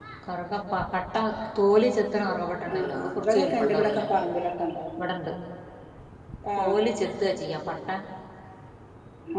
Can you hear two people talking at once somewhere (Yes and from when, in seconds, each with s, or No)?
Yes, from 2.7 s